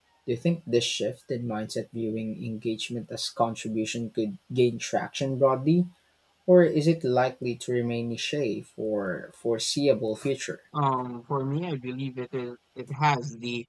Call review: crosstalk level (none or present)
none